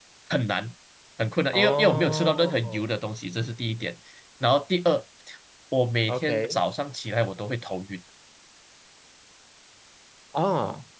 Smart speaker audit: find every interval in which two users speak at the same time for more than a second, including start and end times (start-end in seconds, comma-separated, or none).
1.5-2.9